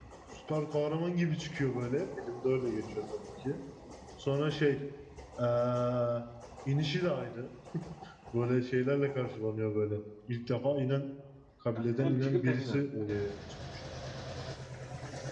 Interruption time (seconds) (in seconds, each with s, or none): 11.8 s